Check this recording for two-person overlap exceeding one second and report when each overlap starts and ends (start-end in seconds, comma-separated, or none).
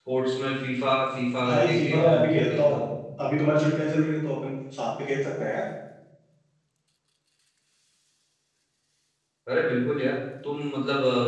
1.4-2.9